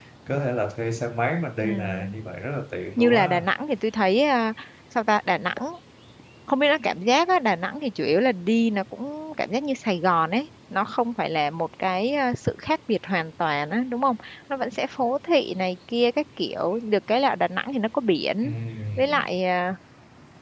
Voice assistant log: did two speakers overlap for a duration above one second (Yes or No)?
No